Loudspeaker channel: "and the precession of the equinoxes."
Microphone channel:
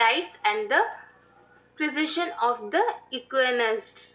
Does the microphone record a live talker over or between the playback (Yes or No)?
No